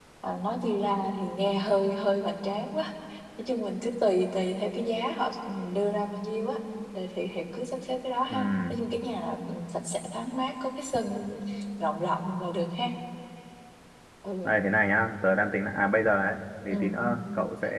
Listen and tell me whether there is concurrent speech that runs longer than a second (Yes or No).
No